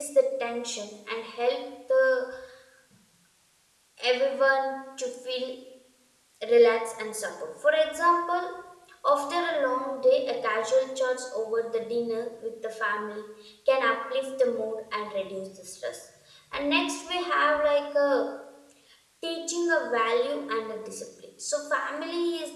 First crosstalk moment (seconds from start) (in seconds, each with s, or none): none